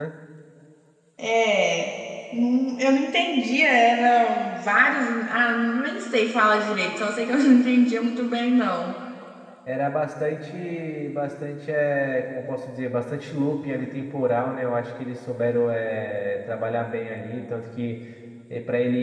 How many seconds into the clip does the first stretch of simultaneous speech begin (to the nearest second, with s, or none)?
none